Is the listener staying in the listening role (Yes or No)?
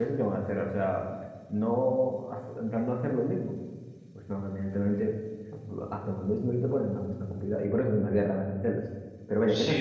No